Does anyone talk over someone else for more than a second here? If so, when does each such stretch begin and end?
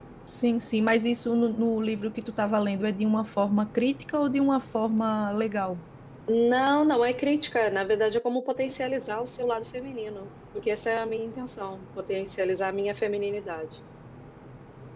none

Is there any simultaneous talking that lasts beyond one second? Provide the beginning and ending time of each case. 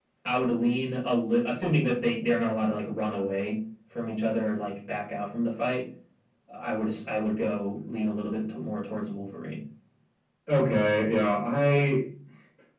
none

